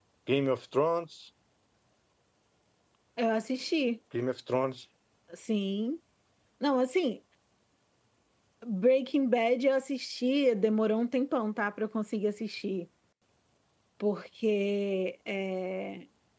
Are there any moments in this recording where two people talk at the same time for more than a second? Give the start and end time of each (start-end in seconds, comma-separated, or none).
none